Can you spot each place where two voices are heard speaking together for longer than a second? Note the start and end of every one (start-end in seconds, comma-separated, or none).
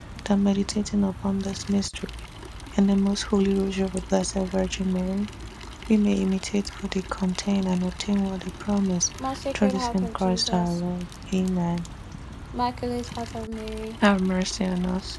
9.6-10.8